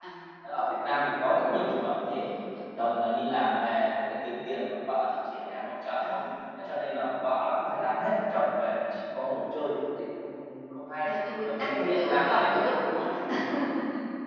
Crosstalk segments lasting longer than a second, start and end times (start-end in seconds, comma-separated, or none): 11.4-12.7